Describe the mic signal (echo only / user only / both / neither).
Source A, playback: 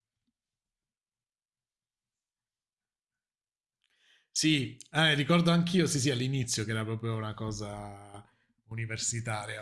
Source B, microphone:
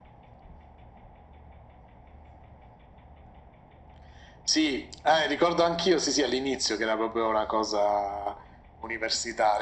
echo only